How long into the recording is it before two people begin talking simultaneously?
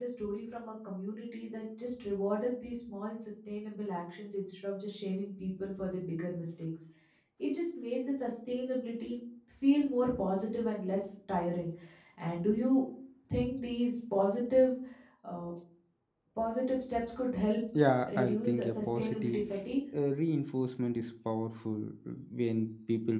18.2 s

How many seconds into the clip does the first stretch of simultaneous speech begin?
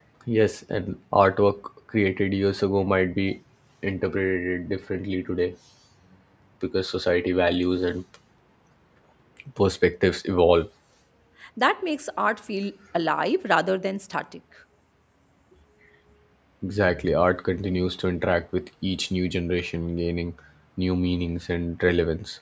none

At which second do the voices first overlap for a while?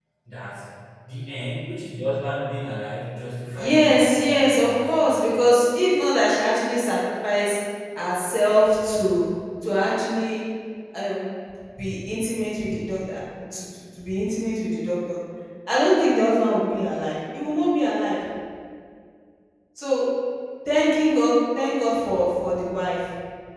3.6 s

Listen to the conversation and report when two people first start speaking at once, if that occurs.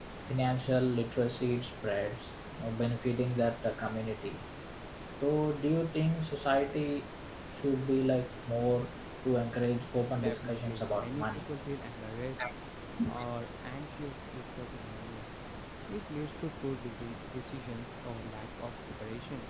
10.2 s

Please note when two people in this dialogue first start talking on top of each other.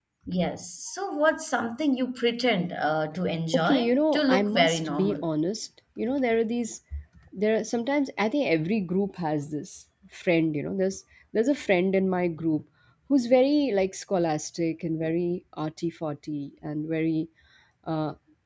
3.5 s

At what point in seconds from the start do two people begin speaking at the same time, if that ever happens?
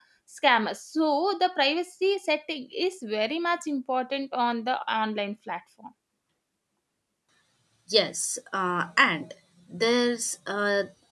none

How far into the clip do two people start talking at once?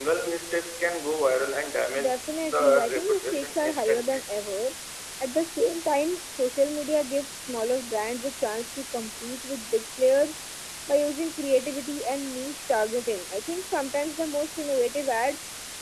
1.9 s

